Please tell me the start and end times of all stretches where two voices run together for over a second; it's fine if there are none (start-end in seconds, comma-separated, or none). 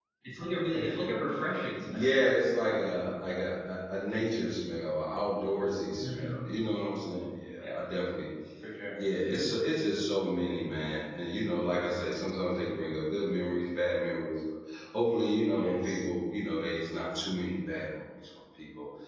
none